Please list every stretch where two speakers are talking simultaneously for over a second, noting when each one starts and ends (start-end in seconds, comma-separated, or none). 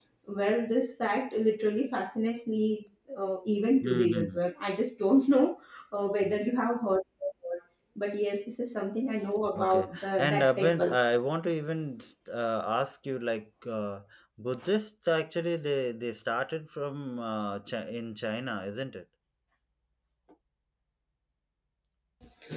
9.6-11.0